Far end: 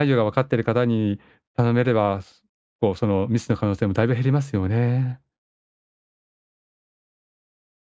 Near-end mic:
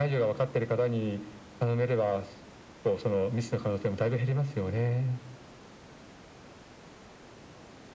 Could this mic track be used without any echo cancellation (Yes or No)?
No